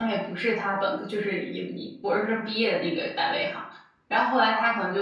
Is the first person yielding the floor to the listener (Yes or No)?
No